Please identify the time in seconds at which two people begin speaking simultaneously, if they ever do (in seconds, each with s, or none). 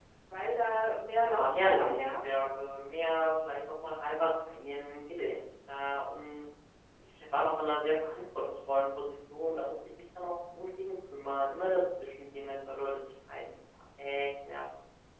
1.1 s